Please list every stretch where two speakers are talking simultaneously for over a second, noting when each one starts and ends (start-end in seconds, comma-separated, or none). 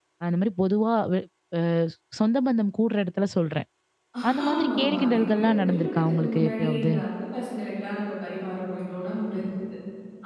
4.4-6.9